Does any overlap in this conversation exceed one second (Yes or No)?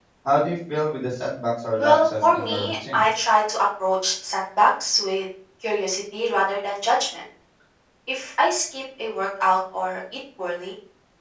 Yes